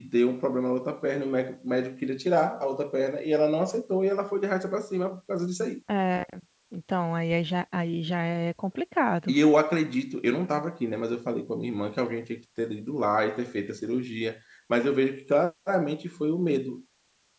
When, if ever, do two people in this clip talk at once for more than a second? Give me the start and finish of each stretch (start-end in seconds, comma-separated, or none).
none